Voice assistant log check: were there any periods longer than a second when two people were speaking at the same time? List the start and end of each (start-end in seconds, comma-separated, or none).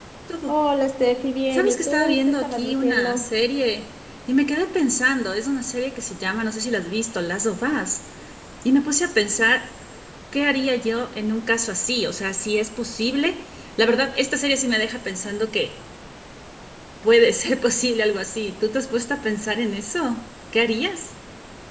1.5-3.3